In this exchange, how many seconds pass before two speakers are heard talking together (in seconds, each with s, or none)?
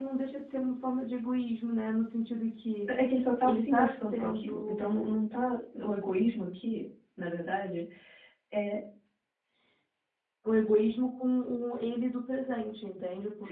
3.4 s